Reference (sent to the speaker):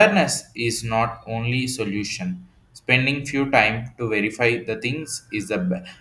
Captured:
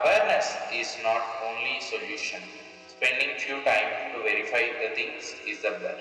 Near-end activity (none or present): none